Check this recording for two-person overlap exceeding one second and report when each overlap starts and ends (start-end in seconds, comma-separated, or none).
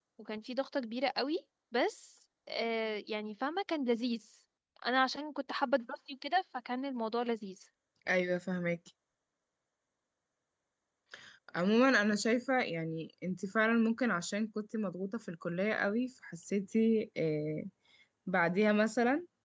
none